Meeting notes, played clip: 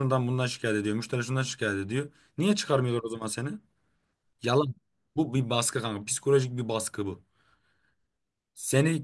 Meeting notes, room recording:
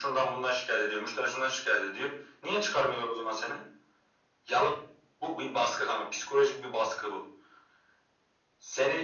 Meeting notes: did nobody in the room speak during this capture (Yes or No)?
Yes